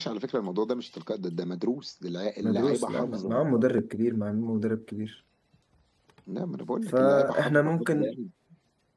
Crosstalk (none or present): present